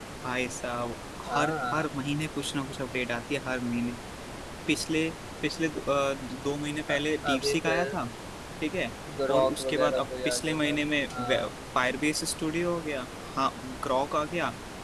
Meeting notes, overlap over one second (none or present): present